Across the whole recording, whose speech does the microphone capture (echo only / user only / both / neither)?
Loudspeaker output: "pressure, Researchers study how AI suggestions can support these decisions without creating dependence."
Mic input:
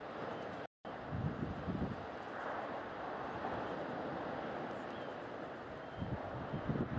neither